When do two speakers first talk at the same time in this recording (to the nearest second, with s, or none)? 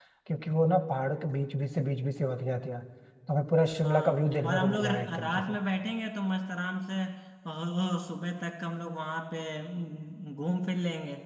4 s